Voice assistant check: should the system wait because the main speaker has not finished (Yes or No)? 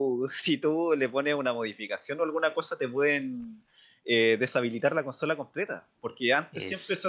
Yes